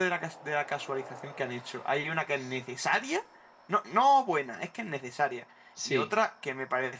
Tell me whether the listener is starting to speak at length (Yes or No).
No